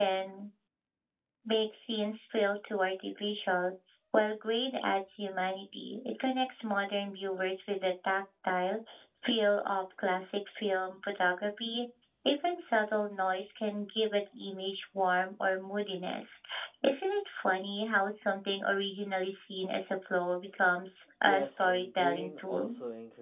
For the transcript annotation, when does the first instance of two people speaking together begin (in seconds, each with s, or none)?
21.2 s